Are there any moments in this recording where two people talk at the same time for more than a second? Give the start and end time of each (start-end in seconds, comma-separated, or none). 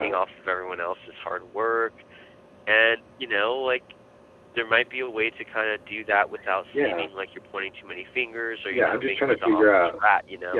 8.7-10.0